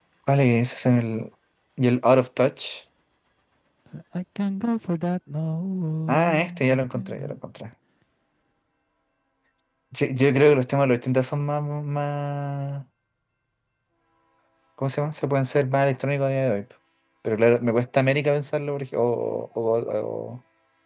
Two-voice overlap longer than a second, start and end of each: 6.1-7.4

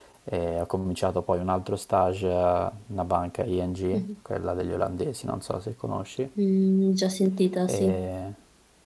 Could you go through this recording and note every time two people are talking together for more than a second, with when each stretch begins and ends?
none

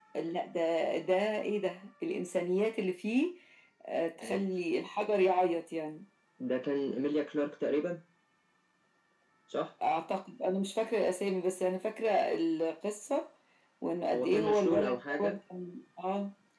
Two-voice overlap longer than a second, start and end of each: 14.1-15.4

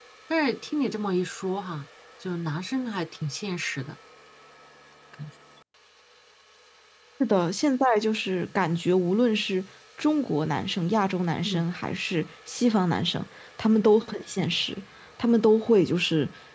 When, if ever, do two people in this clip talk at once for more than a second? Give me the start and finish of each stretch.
none

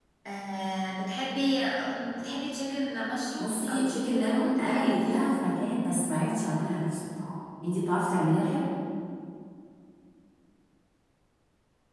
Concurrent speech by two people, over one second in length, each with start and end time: 3.4-5.2

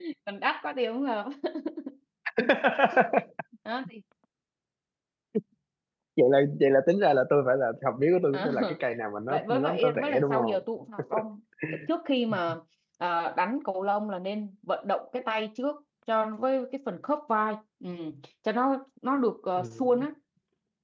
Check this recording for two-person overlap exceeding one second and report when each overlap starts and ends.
9.3-10.6

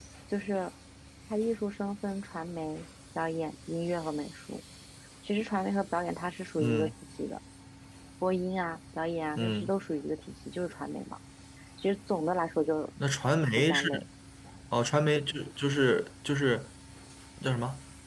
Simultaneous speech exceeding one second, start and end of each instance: none

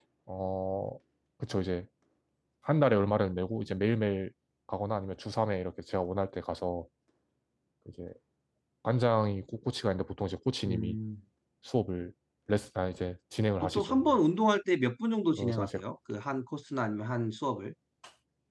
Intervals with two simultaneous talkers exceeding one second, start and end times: none

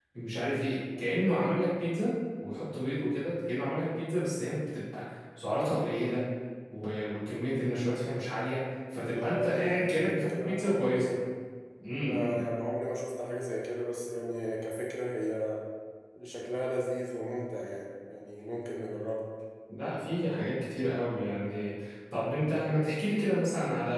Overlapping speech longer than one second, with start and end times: 9.0-11.2

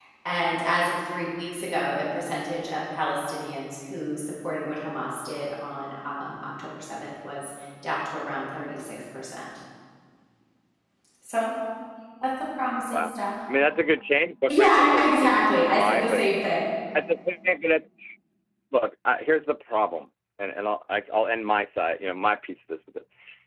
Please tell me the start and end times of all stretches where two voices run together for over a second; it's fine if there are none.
14.5-16.2

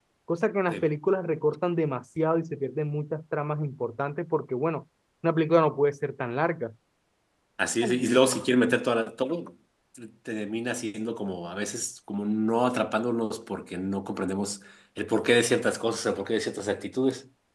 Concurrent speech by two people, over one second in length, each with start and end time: none

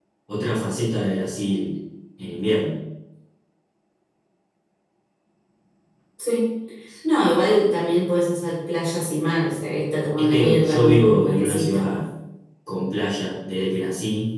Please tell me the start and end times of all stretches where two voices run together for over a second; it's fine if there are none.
10.2-11.9

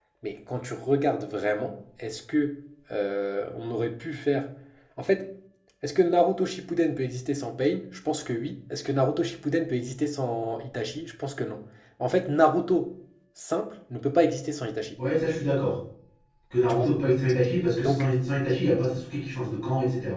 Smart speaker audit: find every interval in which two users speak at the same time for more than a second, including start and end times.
none

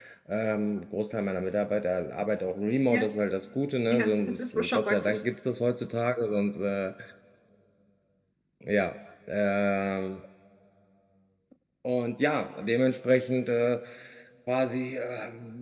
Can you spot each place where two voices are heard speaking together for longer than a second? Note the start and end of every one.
3.9-5.2

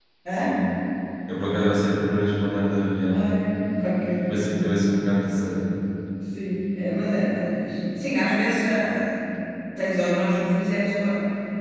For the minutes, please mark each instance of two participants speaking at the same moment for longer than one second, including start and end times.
none

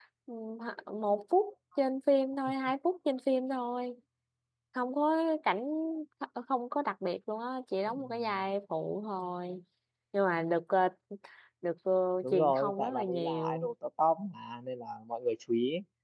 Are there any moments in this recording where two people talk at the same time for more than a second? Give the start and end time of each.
12.3-13.7

